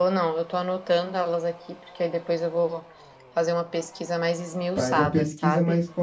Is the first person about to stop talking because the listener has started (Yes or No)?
Yes